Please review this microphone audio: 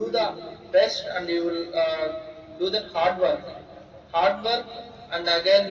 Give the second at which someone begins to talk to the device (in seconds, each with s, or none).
none